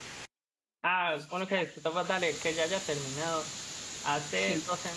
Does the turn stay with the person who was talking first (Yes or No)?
Yes